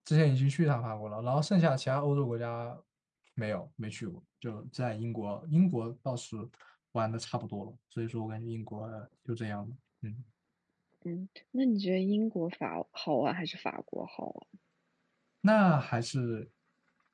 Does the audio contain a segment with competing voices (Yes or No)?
No